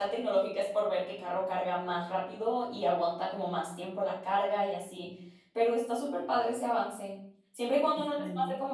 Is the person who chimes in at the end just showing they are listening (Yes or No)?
Yes